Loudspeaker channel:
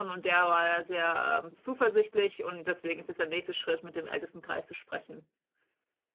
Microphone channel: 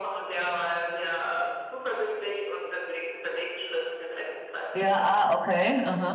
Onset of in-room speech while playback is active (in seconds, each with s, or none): 4.7 s